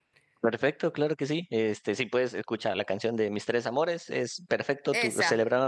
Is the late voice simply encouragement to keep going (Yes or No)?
Yes